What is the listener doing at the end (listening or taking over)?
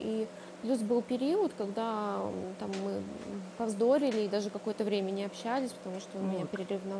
listening